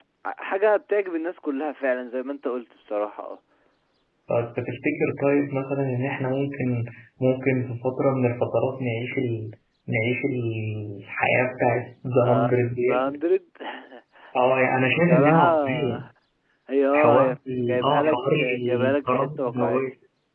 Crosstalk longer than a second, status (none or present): present